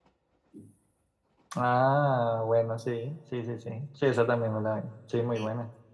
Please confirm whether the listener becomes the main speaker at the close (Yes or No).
Yes